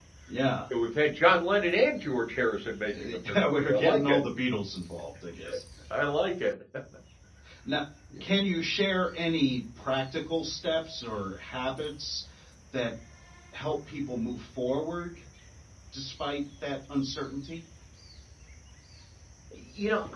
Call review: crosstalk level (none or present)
present